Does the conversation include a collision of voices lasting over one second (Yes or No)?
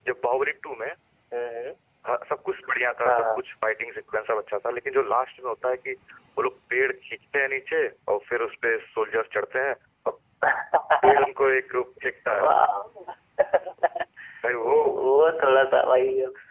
No